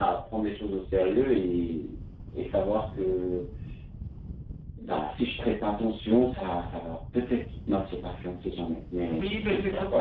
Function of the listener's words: taking over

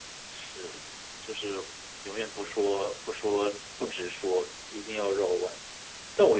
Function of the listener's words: listening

